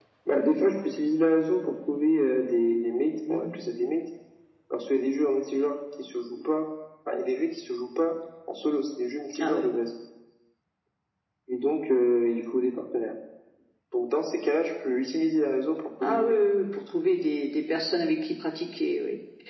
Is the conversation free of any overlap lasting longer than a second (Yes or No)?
Yes